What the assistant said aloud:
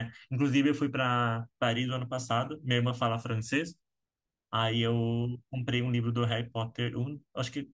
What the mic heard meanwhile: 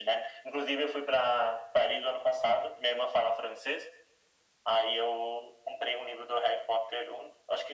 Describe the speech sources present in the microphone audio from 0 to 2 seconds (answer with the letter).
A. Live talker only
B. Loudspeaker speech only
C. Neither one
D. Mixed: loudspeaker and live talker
B